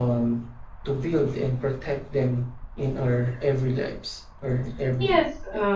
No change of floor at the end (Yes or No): No